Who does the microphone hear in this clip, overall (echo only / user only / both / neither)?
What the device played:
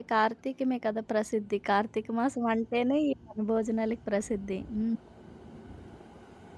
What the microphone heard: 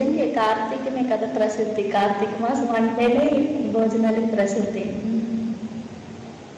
echo only